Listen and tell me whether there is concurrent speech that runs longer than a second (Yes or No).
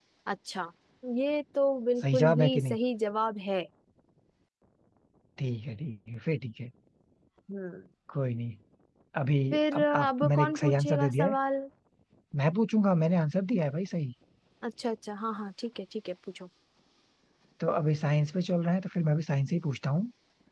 Yes